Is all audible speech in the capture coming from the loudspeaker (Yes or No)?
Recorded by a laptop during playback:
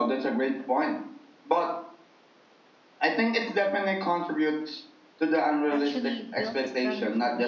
No